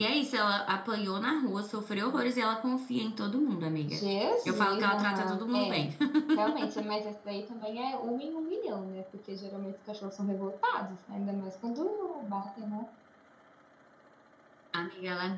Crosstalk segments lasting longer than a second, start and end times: 4.4-5.8

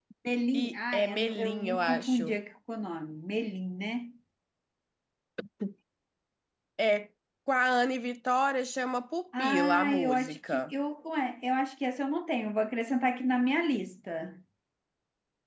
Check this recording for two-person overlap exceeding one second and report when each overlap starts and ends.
0.5-2.4, 9.4-10.6

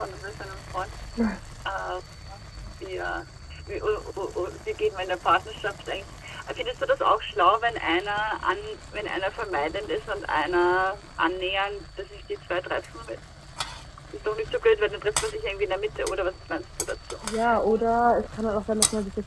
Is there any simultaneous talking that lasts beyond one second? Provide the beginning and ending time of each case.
none

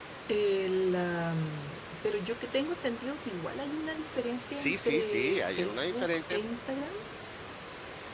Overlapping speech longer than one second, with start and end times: 4.5-6.4

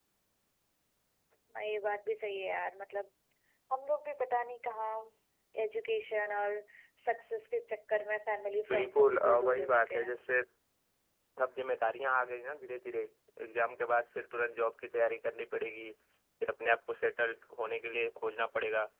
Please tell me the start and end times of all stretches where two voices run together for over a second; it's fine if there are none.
8.7-10.2

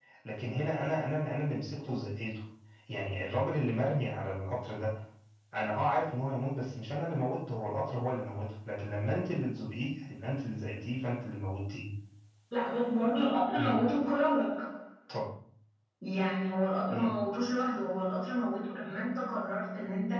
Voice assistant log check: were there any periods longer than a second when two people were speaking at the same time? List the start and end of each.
none

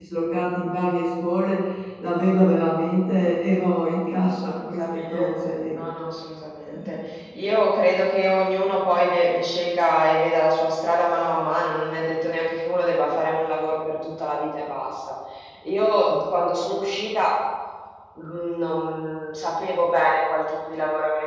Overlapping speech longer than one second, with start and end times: 4.2-5.8

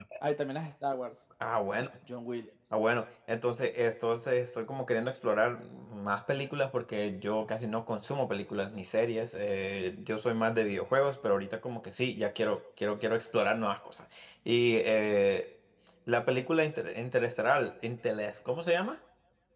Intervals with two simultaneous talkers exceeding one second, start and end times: none

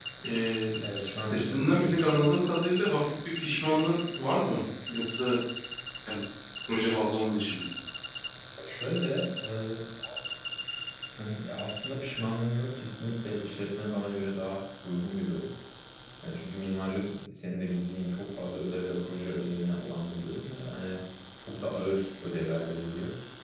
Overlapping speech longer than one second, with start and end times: 0.9-2.2

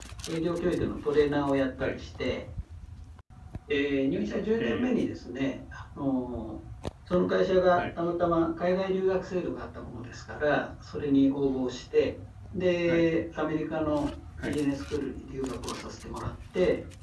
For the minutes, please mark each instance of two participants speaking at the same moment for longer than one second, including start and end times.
none

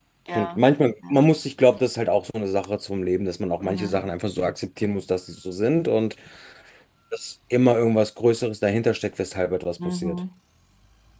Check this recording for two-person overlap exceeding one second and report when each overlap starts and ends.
none

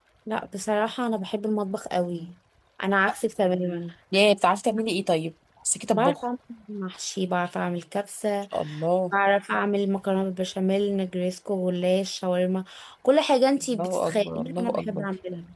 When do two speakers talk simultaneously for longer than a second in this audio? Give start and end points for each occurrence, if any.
13.7-15.0

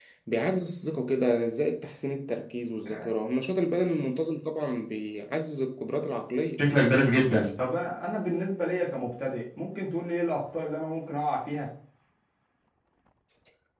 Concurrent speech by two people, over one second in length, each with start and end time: none

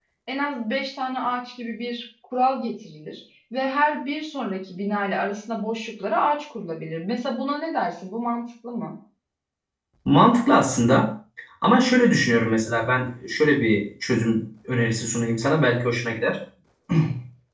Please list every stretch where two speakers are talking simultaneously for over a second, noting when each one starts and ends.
none

